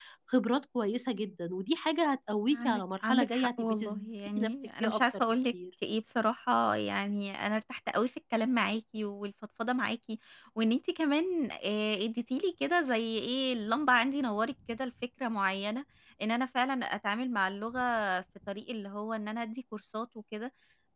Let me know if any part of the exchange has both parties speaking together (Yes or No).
Yes